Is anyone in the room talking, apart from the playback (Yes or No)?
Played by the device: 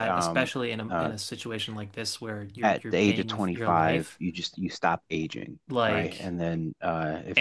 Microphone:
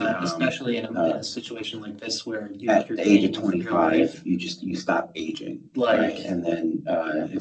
No